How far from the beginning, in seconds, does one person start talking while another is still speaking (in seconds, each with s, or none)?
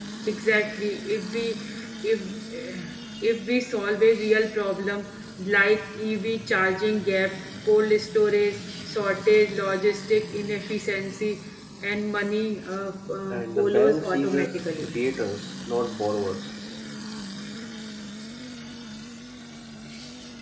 13.3 s